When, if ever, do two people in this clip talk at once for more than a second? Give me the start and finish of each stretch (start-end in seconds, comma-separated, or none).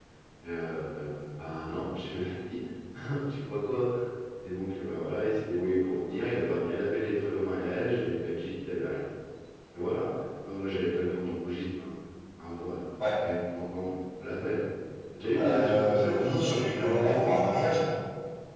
15.4-17.3